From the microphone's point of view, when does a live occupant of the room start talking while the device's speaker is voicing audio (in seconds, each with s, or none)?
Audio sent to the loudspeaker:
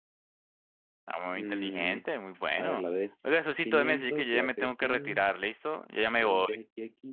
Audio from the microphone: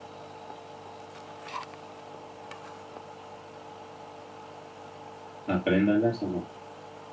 5.5 s